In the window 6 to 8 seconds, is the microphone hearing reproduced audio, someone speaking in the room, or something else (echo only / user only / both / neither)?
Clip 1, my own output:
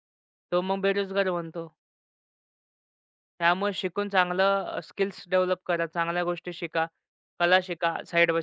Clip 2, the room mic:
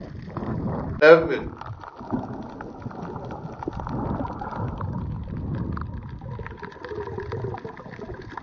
neither